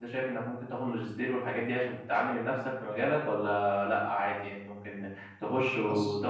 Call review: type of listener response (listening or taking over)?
listening